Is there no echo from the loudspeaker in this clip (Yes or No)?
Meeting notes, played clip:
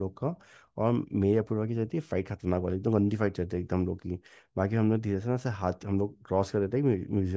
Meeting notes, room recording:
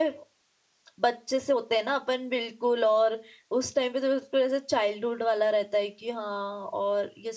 Yes